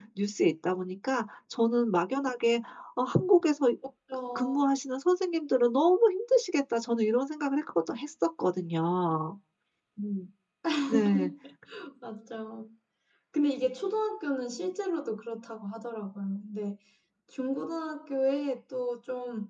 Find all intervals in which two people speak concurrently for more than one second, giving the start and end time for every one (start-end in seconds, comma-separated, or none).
none